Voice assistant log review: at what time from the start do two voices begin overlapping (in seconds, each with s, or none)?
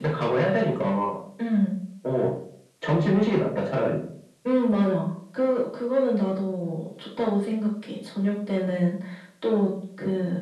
none